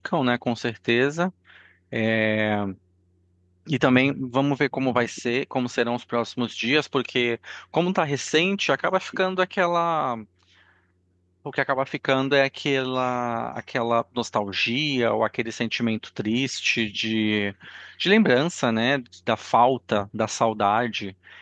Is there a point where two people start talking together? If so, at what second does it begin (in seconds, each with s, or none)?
none